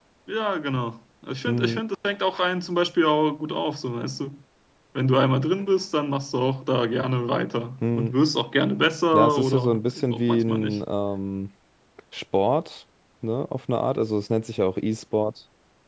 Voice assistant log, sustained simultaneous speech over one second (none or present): present